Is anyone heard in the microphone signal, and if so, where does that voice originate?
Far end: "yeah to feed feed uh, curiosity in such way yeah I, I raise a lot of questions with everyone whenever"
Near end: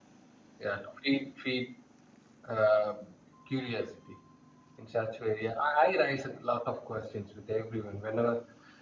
echo only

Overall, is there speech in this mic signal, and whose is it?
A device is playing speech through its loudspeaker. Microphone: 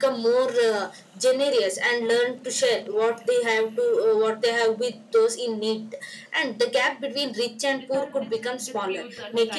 both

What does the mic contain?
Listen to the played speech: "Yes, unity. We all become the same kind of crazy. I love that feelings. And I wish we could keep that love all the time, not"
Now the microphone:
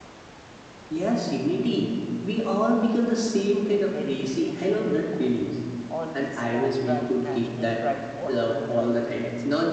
both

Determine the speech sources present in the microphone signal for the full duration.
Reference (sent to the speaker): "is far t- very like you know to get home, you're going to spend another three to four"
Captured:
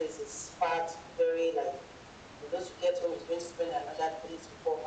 echo only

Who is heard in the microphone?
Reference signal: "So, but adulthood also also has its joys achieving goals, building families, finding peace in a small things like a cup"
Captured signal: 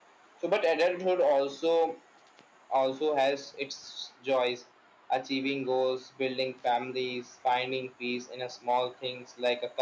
echo only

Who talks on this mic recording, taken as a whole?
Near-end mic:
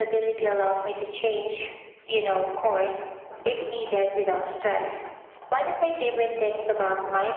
echo only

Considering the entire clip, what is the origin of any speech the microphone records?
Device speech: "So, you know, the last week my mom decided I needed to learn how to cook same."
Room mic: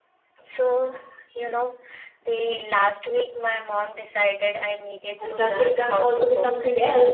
both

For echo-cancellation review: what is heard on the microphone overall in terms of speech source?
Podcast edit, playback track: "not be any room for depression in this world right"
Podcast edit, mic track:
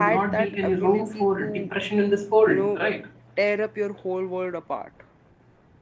both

